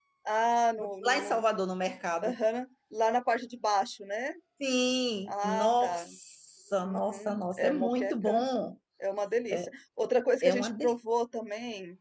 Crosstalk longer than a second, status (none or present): present